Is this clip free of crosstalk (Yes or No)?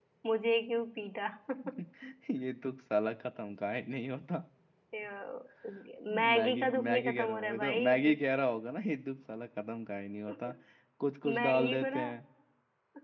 No